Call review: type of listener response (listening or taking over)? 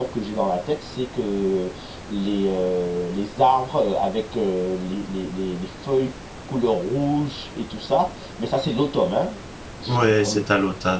taking over